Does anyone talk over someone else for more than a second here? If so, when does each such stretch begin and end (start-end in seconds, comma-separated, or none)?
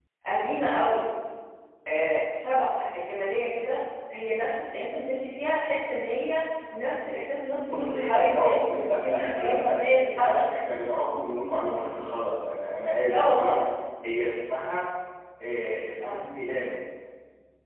7.7-10.5